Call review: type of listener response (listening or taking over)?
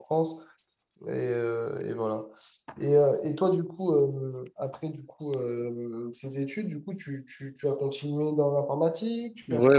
taking over